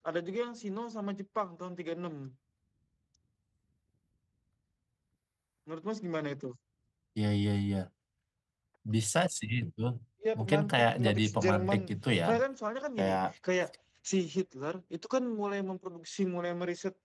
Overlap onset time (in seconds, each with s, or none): 10.4 s